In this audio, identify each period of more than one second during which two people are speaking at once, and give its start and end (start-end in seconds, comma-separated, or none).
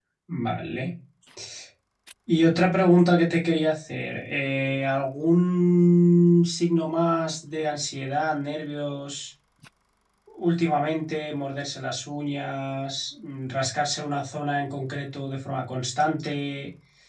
none